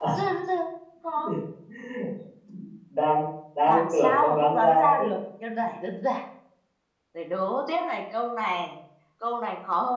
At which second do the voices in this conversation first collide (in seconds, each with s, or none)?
3.7 s